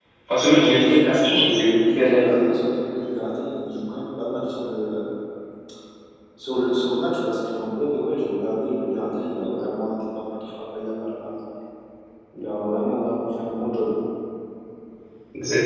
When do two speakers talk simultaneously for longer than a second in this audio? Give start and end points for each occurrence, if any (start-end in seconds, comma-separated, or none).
0.5-2.4